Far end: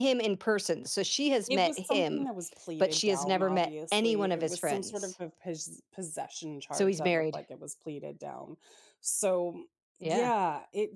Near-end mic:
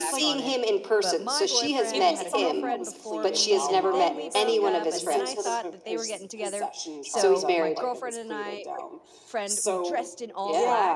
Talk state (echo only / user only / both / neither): both